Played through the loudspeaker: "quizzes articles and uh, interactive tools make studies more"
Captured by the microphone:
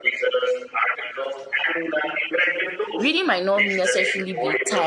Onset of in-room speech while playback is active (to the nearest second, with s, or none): 3 s